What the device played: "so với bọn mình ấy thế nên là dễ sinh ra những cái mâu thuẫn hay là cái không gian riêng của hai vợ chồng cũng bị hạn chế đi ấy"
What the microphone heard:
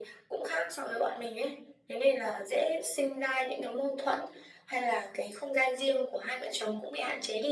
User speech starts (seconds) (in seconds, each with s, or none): none